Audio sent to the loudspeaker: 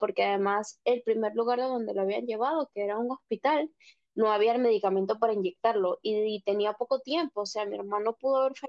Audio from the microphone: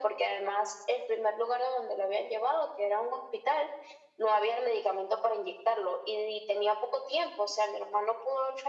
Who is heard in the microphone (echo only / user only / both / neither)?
echo only